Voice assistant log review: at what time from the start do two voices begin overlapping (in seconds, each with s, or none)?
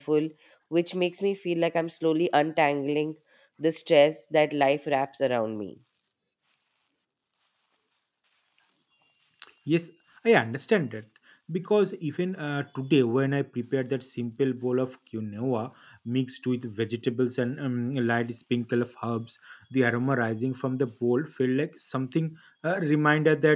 none